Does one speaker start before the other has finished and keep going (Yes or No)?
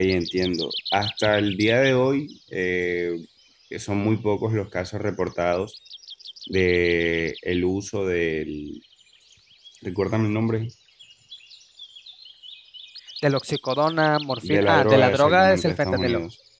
Yes